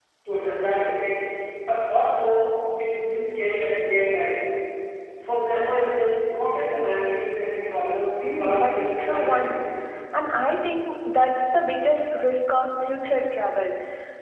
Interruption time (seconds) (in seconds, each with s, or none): 8.2 s